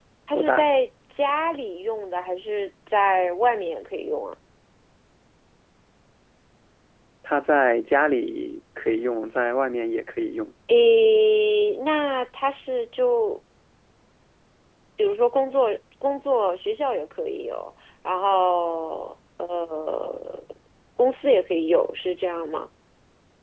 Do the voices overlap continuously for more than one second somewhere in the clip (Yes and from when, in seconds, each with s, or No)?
No